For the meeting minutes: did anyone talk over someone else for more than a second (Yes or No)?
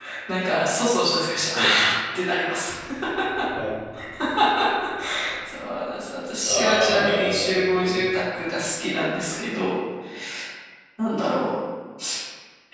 Yes